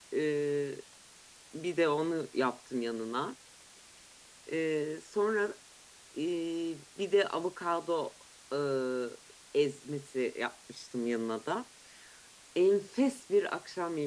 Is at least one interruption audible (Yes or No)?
No